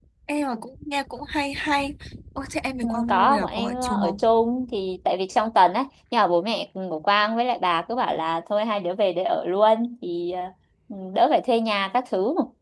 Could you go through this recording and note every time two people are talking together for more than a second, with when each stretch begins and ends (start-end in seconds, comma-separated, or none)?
2.8-4.3